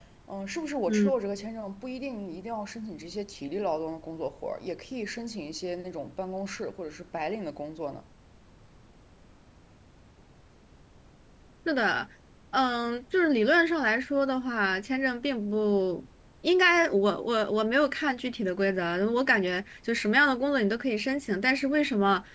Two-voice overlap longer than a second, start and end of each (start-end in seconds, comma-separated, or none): none